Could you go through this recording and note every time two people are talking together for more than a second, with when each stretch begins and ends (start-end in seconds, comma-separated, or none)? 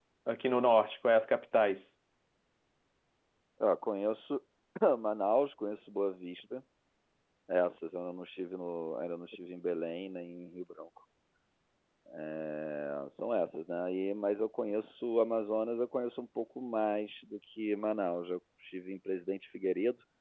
none